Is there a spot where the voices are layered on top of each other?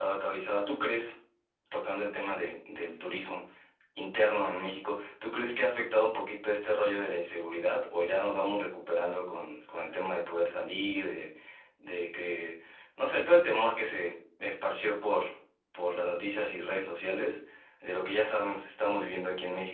No

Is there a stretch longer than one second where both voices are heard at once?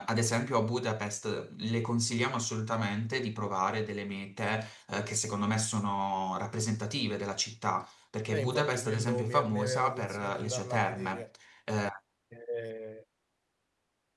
Yes, from 8.3 s

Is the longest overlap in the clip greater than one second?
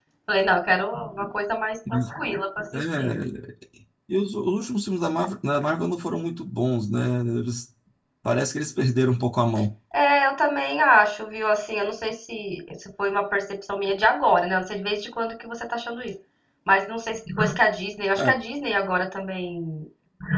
No

